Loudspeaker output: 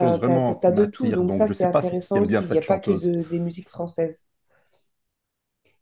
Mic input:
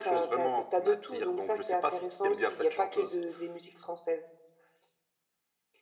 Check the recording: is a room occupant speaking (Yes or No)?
No